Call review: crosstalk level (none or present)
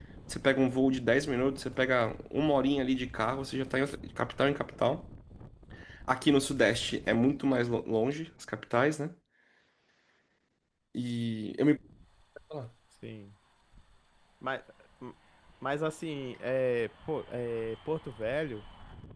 none